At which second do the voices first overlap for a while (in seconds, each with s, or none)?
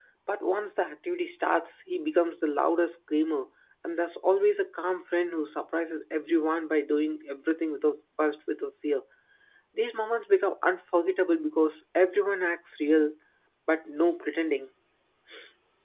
none